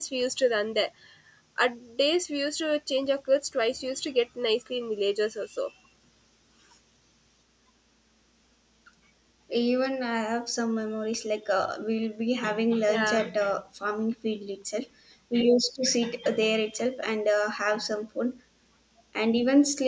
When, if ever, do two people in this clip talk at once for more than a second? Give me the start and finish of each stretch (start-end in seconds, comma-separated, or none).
none